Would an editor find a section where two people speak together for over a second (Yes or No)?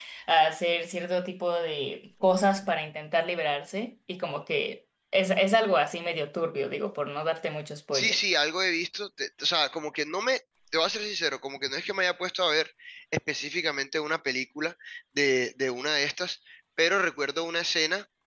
No